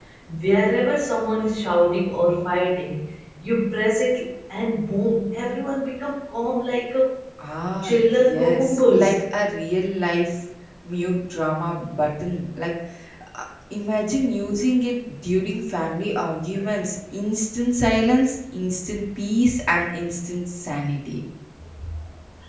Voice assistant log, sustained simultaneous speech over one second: present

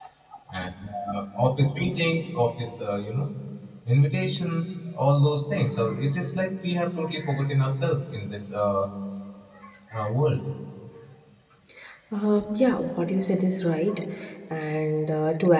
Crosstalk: none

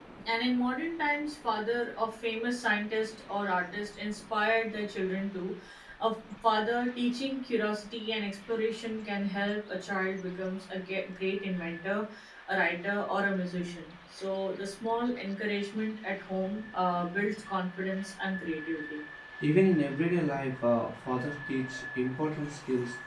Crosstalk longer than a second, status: none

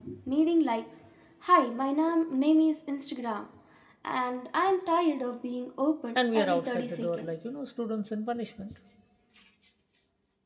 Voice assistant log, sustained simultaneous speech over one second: present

